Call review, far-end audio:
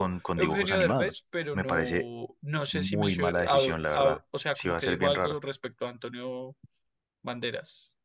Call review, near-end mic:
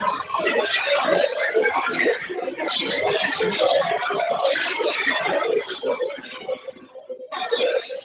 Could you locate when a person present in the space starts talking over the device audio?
none

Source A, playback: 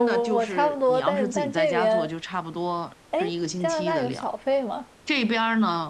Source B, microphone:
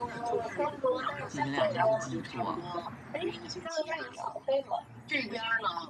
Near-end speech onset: 1.3 s

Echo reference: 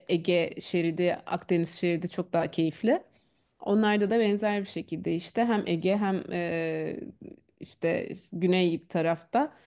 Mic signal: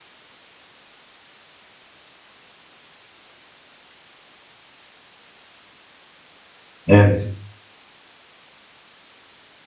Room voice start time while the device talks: 6.9 s

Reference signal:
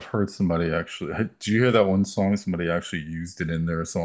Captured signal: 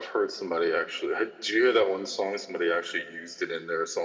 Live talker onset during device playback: none

